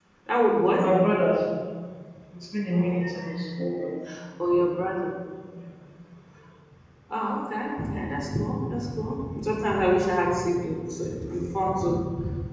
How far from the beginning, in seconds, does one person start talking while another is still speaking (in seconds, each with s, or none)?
none